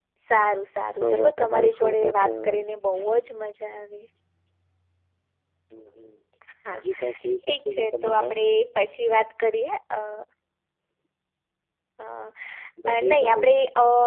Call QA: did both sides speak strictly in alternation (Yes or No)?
No